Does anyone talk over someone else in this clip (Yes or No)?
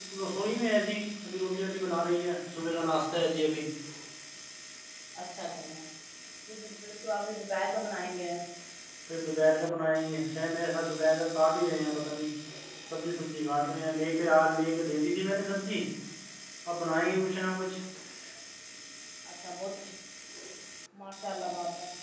No